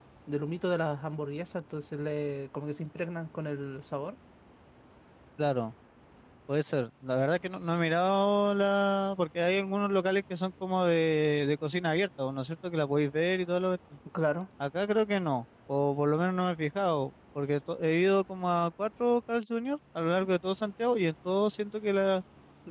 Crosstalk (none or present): none